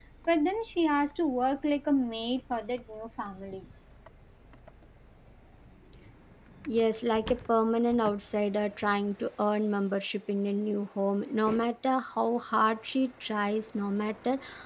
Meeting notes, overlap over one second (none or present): none